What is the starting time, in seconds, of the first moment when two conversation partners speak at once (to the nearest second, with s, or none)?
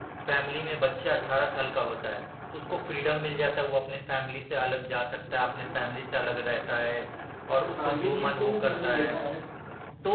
8 s